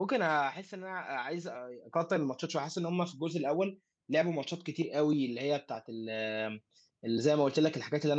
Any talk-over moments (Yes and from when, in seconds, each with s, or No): No